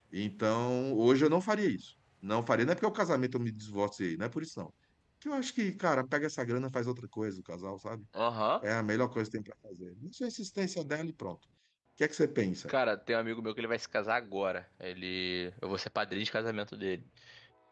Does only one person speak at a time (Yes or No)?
Yes